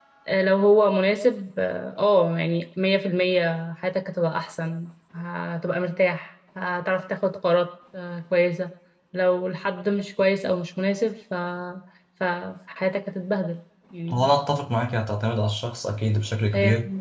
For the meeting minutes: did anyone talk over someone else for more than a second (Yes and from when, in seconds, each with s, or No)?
No